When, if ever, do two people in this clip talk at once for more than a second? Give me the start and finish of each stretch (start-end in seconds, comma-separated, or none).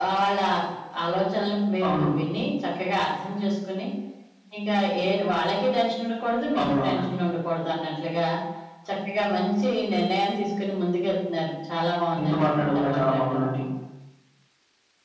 12.2-13.4